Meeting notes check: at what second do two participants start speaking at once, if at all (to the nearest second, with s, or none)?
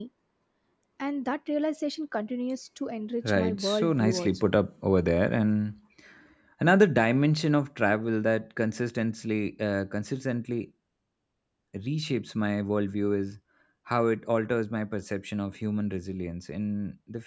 3 s